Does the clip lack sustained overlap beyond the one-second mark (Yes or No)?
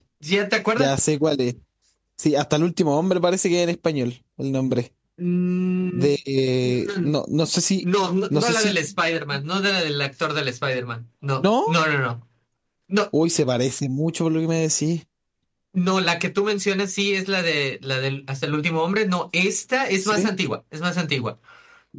Yes